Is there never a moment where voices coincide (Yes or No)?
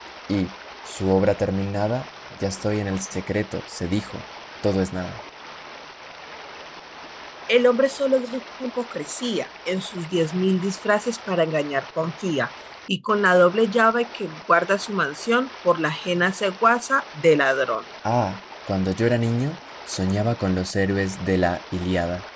Yes